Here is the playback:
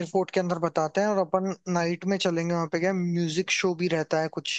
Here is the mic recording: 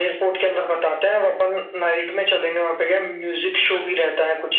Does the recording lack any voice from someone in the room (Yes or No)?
No